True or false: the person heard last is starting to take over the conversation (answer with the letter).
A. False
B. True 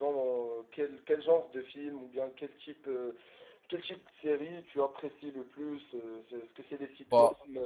A